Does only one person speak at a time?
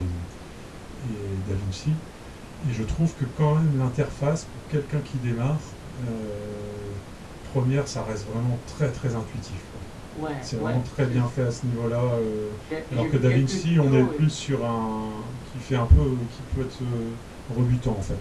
No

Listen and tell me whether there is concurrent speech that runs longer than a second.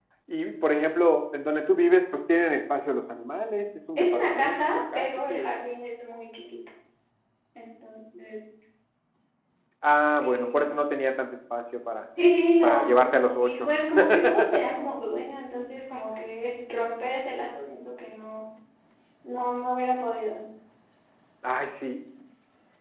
Yes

